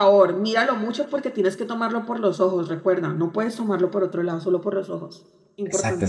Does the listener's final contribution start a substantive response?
Yes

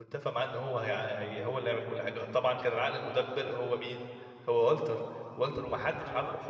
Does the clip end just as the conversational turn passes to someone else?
No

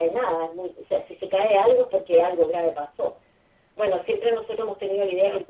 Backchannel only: Yes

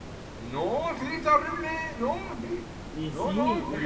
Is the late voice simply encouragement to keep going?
No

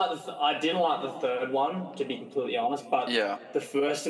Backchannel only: Yes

